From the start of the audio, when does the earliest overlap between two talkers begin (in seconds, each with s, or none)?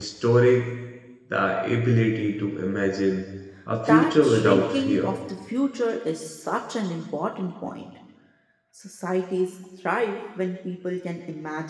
3.9 s